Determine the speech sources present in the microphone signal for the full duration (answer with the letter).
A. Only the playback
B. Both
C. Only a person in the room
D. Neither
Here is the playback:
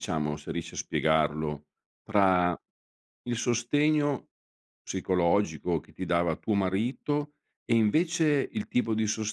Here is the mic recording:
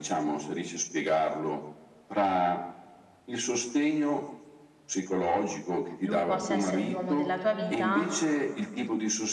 B